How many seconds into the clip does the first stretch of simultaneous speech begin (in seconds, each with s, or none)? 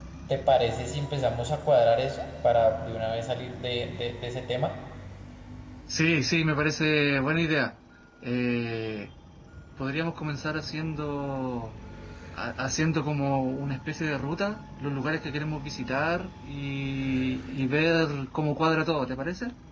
none